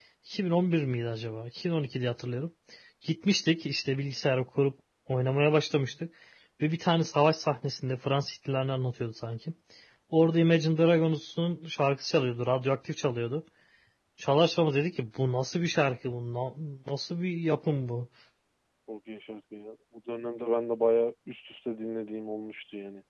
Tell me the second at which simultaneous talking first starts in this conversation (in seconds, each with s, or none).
none